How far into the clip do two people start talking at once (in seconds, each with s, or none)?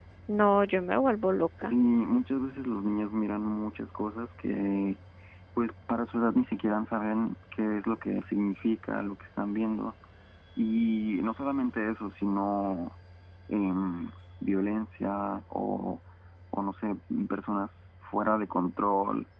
none